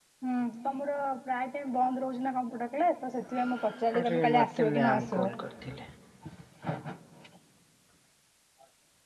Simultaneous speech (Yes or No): Yes